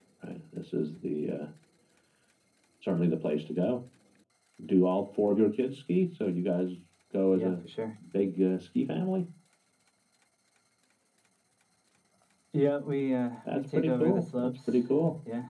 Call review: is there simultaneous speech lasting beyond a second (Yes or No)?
Yes